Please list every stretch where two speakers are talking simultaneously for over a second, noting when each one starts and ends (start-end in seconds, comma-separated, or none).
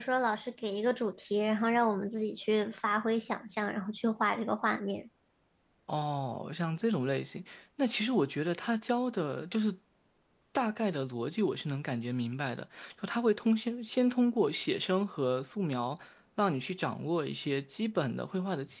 none